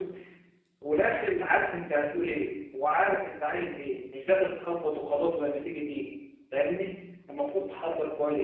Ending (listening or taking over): listening